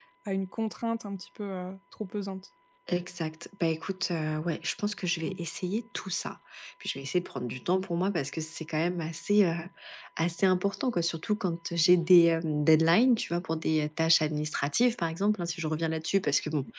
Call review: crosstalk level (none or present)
none